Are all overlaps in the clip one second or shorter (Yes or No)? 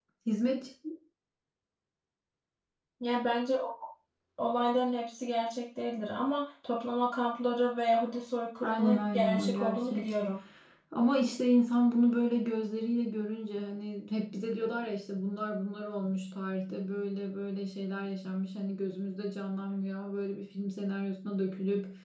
No